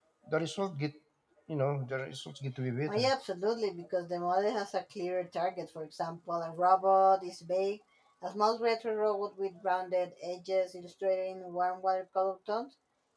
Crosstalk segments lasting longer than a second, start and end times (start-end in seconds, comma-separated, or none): none